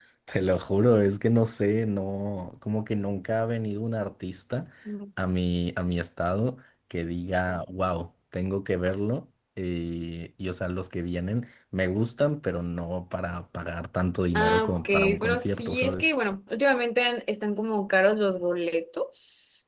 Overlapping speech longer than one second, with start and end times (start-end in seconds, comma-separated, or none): 14.3-16.1